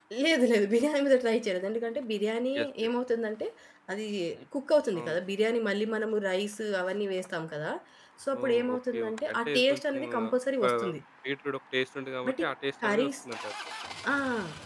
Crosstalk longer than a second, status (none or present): present